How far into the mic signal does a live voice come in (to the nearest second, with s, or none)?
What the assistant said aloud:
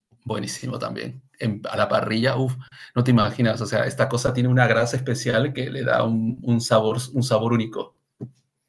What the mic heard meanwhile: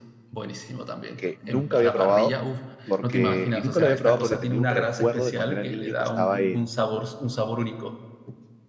1 s